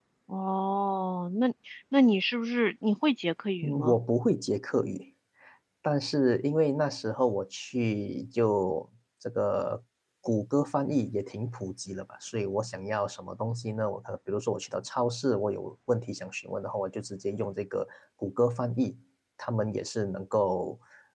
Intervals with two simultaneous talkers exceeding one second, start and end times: none

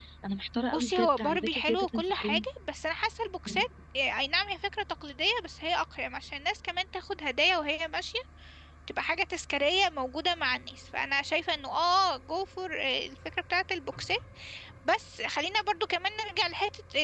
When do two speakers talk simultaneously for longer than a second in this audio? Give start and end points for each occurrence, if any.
0.7-2.4

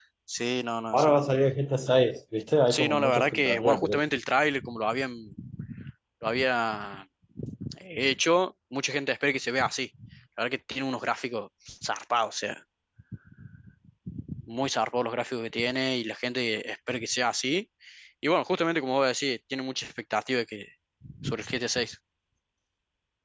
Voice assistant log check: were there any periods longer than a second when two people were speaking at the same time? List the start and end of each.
2.7-4.0

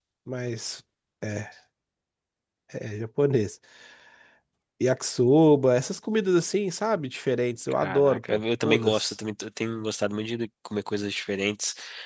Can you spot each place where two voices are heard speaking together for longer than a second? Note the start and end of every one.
7.8-9.1

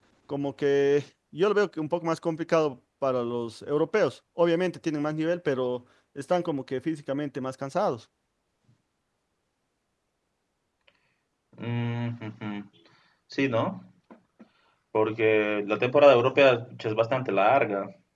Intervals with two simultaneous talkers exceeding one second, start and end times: none

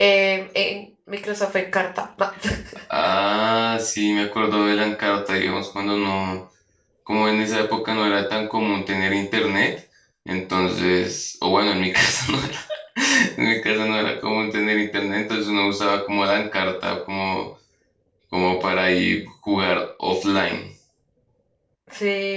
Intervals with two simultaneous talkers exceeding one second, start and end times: none

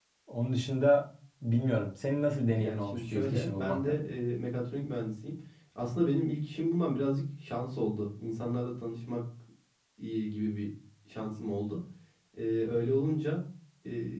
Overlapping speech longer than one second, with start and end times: 2.6-3.9

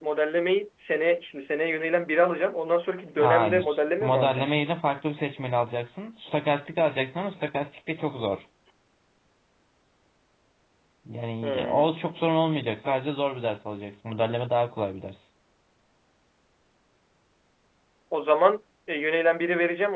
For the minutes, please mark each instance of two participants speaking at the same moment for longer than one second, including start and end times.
3.2-4.5

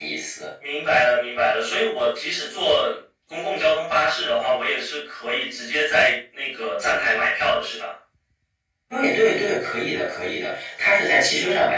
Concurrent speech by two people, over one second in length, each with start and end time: none

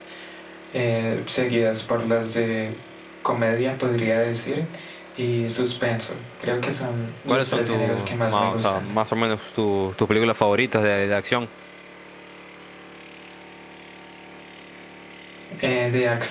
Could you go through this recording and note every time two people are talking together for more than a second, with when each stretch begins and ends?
7.3-8.9

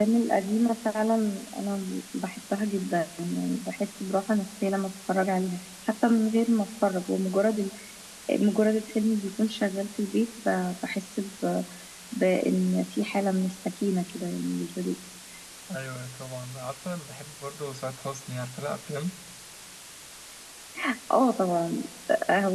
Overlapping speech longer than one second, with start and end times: none

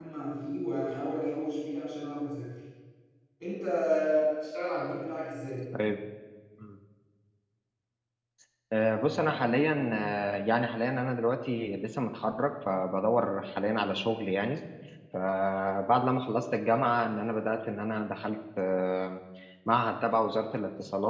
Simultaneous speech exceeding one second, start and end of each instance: none

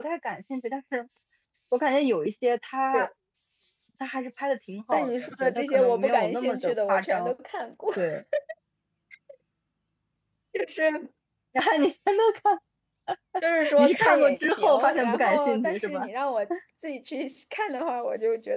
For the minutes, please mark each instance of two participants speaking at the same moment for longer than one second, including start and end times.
4.9-7.3, 13.8-16.0

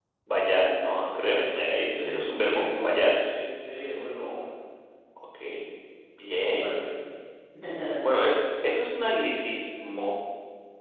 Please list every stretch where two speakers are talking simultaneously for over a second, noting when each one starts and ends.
1.3-3.0

